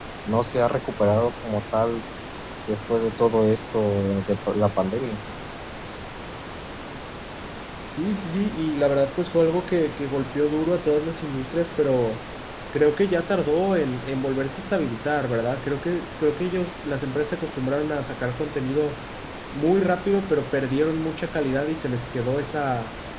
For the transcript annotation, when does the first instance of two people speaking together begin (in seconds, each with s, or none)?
none